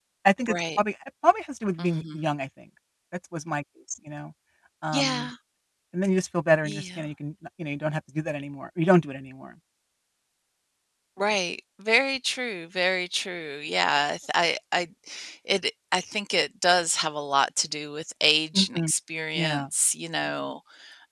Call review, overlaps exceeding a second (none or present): none